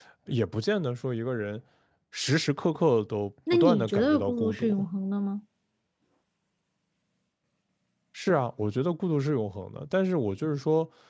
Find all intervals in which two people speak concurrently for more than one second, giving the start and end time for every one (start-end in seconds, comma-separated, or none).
3.5-4.8